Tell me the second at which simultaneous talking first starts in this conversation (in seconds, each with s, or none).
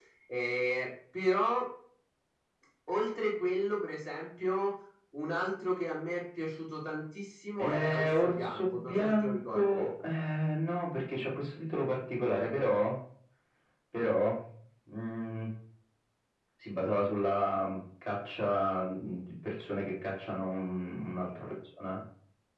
7.6 s